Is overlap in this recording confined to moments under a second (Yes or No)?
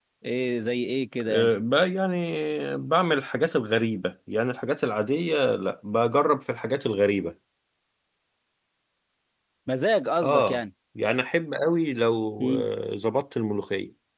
Yes